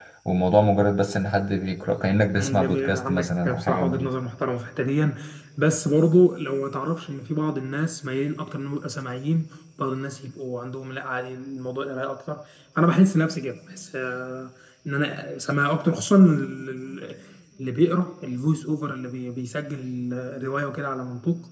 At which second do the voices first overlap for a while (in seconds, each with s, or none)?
2.4 s